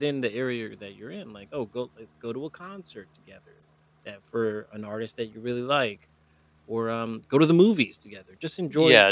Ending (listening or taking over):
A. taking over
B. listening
A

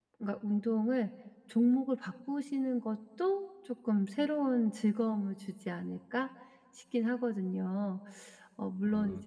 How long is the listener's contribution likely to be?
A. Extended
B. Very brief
B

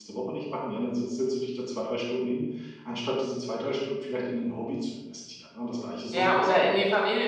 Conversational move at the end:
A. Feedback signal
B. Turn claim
B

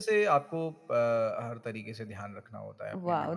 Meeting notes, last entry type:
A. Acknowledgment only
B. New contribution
B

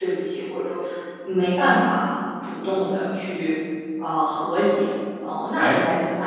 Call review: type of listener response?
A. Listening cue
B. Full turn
B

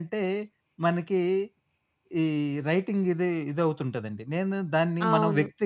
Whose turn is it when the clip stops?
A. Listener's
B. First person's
B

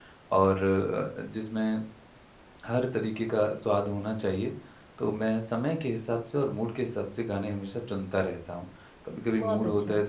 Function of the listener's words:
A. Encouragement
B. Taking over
A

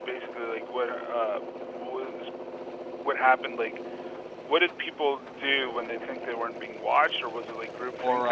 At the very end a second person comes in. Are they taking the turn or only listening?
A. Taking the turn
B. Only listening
A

